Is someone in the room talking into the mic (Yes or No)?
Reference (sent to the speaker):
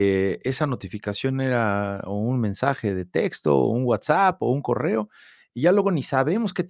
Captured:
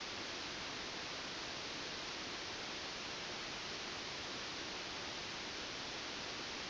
No